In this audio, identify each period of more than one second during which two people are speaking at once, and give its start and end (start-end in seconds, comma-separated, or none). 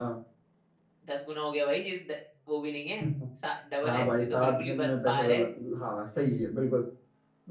3.8-5.5